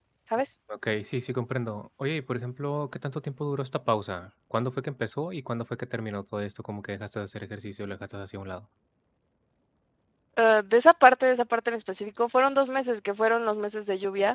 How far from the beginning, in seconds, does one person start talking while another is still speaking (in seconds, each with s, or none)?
none